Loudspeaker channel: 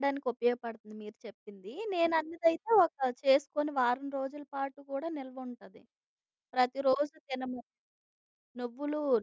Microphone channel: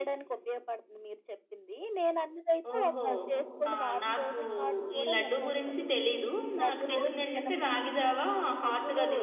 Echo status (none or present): present